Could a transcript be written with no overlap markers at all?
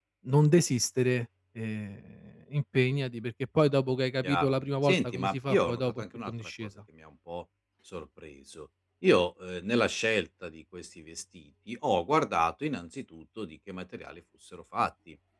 No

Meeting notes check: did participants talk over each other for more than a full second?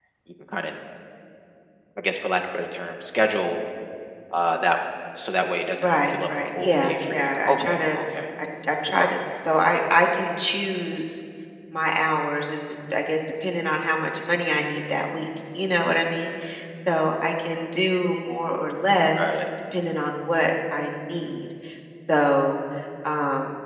Yes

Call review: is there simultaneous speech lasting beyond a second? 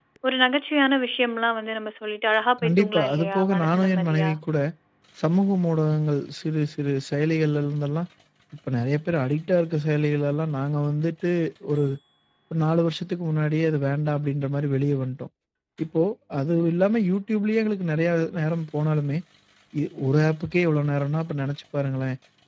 Yes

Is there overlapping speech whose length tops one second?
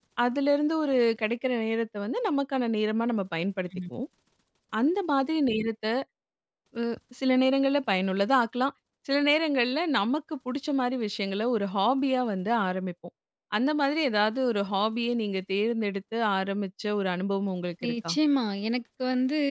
No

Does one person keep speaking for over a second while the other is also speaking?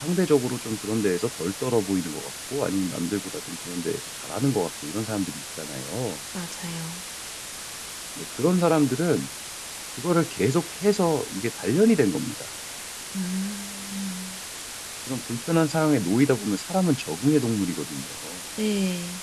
No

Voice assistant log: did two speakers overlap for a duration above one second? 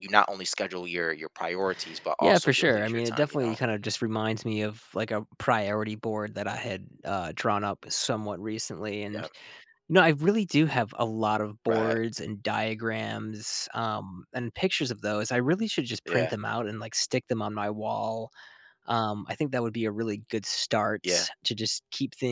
Yes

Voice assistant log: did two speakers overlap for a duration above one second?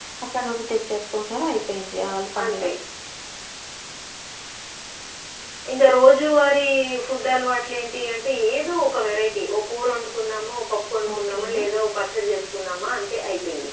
No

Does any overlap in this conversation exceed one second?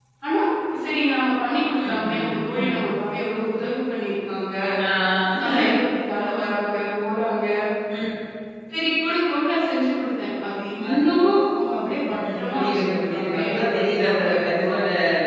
Yes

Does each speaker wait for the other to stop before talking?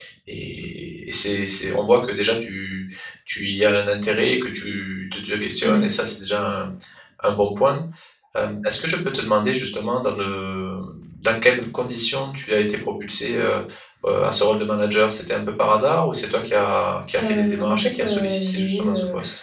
No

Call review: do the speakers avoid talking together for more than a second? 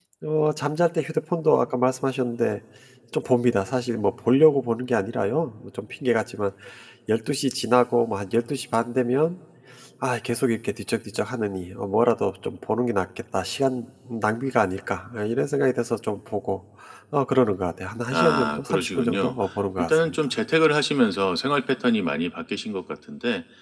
No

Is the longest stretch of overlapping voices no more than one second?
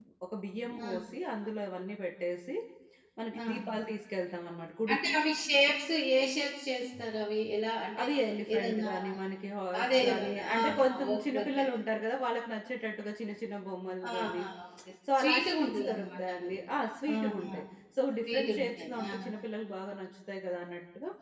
No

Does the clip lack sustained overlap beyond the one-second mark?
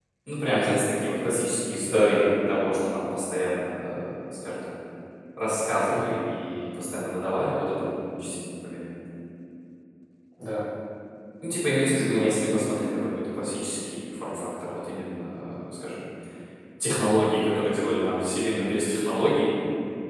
Yes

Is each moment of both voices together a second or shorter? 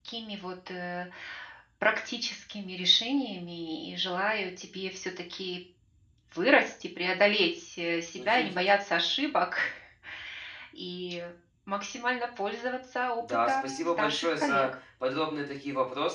No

